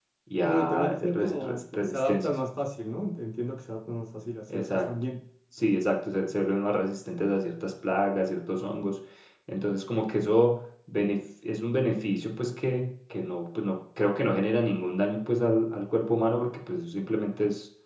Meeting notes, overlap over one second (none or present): present